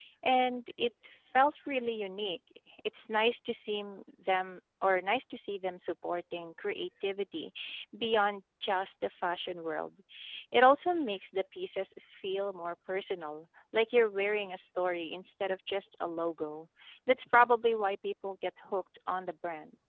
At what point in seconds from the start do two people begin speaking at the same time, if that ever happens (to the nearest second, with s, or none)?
none